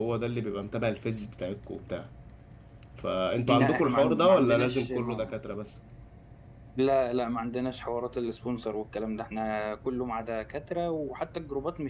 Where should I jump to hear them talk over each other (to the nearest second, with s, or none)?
3 s